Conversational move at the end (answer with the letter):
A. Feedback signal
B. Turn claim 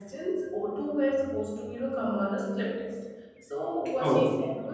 A